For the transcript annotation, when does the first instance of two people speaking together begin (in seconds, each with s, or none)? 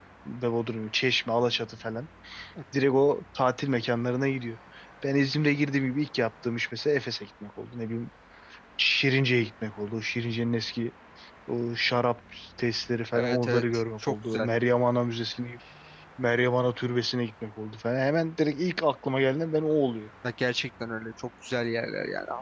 13.1 s